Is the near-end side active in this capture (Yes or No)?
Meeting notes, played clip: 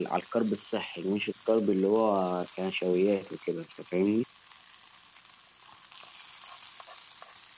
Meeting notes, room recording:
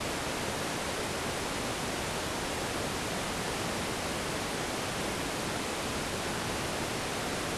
No